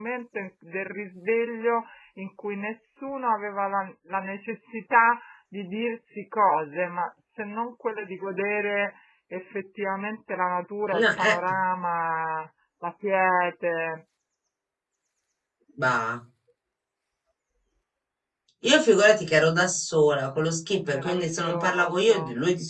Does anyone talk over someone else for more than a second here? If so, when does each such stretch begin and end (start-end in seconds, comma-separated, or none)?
20.9-22.2